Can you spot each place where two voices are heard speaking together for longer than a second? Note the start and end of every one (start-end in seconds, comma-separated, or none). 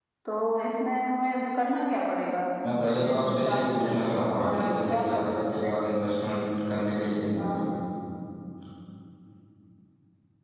2.8-5.2